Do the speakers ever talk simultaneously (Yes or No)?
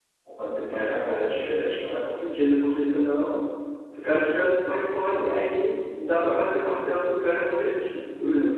Yes